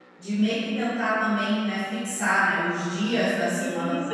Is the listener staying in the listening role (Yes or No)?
No